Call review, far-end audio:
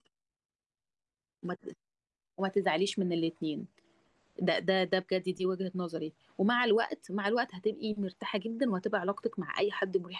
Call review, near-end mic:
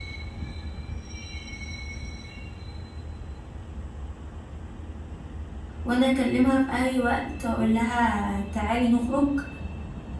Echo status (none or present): none